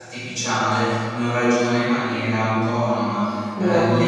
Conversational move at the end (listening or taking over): listening